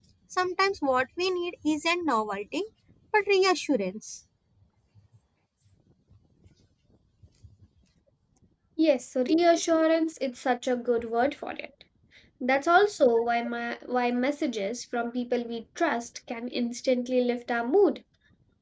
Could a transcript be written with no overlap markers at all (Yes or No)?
Yes